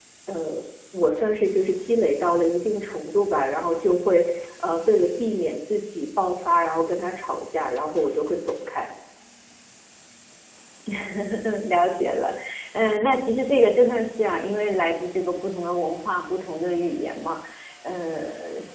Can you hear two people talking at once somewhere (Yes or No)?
No